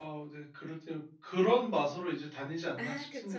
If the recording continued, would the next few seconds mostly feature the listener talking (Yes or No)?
Yes